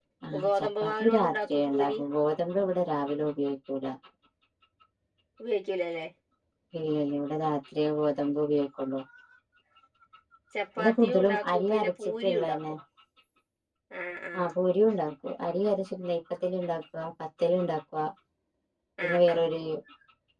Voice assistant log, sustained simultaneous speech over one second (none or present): present